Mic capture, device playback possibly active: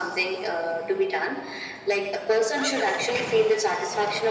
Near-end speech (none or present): none